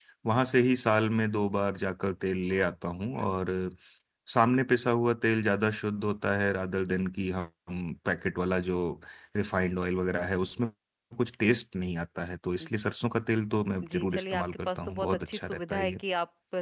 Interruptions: present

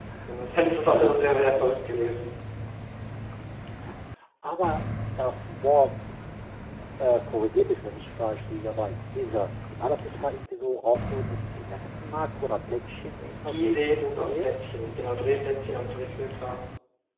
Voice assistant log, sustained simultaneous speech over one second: present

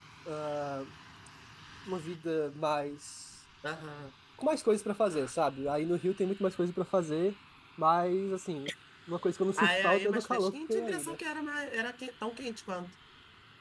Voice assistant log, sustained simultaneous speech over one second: present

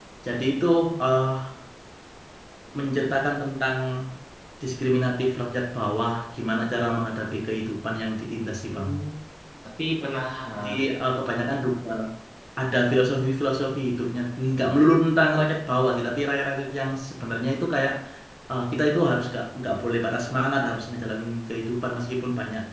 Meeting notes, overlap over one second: none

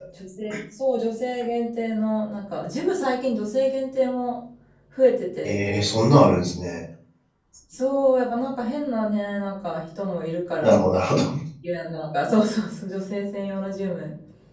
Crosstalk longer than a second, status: none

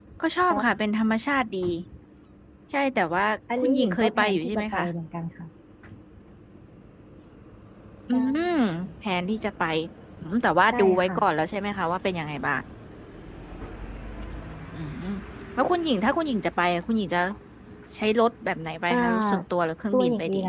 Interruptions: present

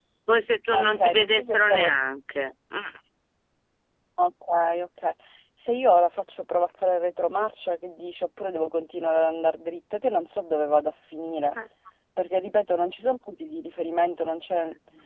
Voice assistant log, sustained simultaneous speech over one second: present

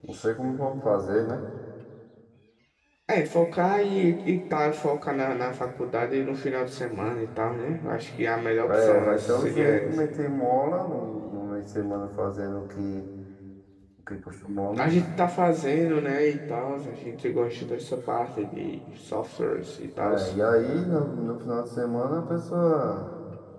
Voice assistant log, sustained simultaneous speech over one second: present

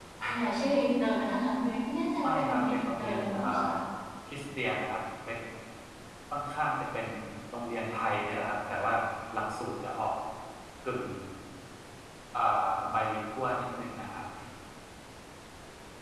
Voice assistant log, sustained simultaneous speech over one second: present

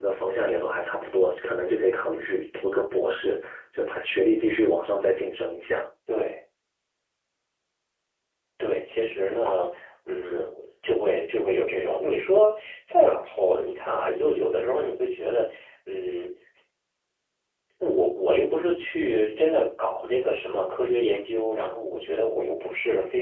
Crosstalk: none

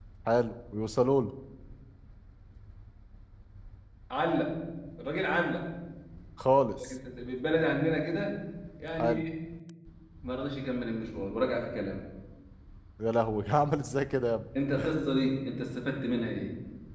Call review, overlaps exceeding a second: none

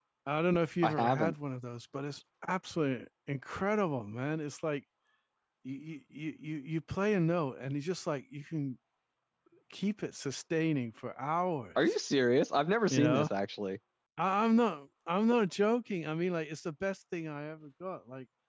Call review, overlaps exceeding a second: none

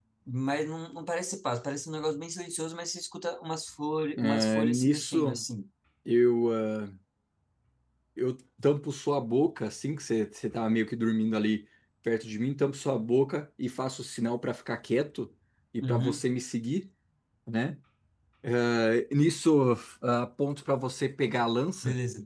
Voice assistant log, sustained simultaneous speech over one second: present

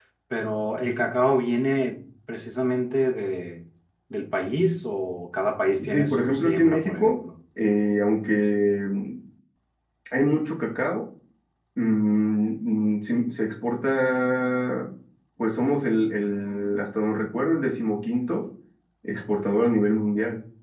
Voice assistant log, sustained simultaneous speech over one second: present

